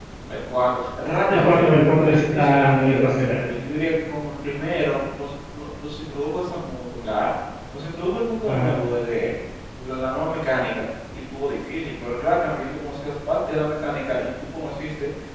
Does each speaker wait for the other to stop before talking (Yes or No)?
No